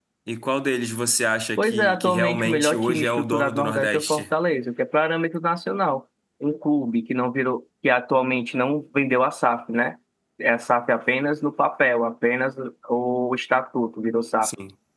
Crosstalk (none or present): present